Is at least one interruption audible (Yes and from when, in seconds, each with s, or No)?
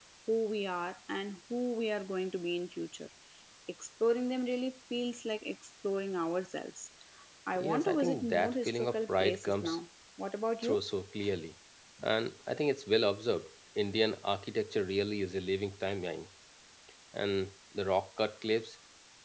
Yes, from 7.5 s